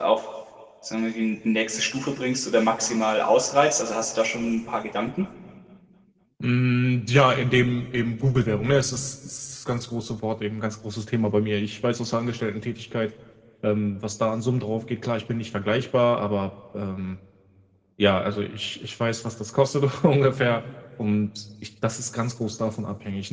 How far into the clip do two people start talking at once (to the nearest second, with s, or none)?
none